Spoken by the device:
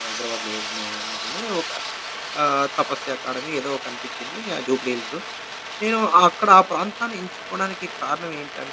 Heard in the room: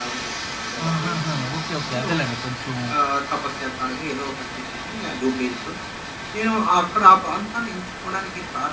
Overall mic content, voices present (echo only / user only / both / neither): both